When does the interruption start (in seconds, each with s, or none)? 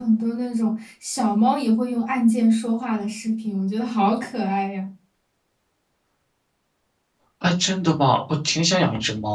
none